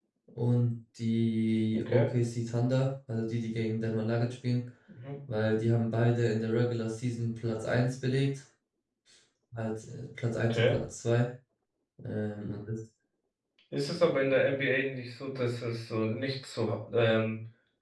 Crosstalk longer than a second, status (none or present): none